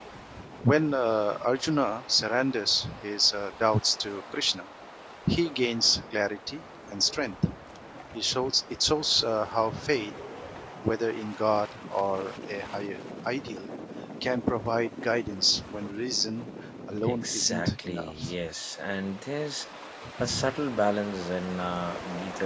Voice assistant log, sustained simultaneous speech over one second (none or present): present